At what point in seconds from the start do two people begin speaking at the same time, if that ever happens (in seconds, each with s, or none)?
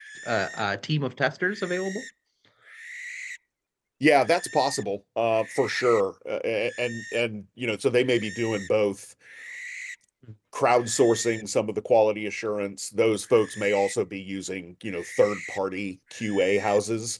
none